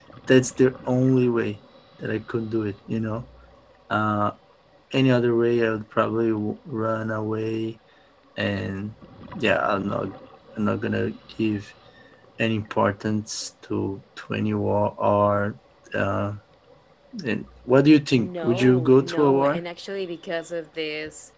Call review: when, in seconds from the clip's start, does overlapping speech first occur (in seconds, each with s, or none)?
18.2 s